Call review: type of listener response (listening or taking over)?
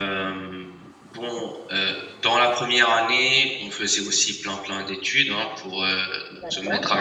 listening